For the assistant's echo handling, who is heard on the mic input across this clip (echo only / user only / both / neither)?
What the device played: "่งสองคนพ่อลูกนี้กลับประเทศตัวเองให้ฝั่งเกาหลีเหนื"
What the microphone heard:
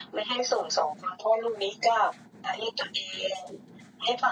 echo only